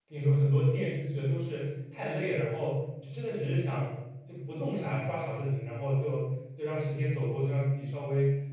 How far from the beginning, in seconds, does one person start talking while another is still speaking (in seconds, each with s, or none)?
none